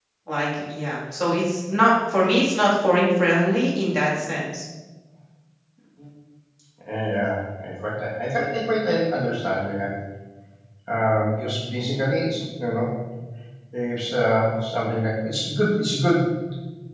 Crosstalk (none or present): none